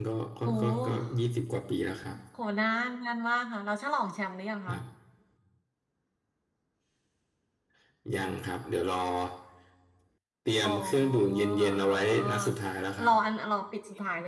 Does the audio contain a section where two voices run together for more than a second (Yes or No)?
Yes